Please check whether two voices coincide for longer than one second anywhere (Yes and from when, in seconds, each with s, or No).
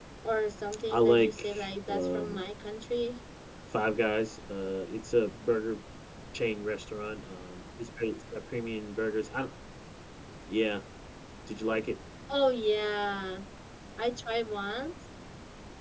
Yes, from 0.9 s